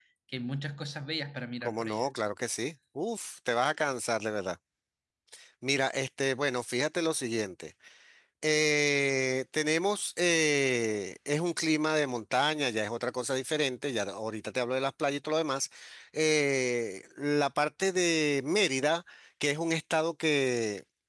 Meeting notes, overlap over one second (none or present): none